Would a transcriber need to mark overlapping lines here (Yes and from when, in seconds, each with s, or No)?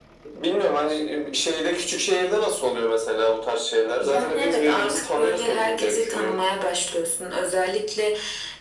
Yes, from 4.0 s